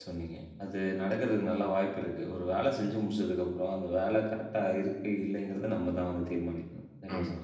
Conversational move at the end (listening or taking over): taking over